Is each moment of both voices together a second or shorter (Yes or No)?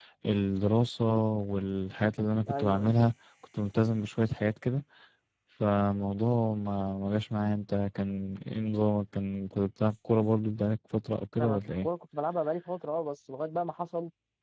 Yes